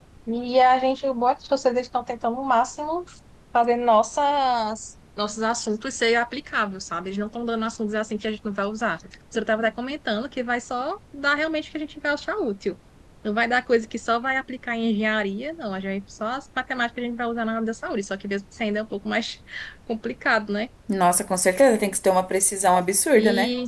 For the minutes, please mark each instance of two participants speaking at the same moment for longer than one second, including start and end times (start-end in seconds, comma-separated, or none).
none